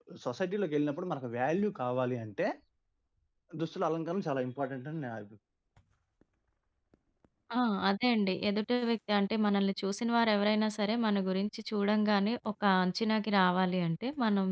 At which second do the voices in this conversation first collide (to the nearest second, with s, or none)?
none